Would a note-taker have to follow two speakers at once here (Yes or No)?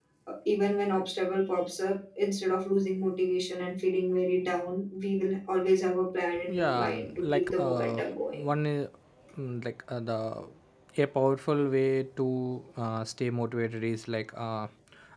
Yes